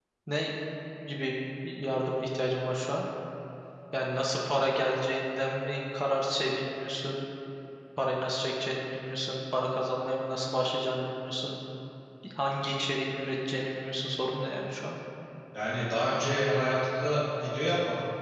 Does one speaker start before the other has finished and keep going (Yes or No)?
No